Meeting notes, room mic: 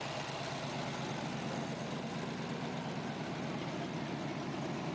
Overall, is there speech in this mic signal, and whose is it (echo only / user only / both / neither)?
neither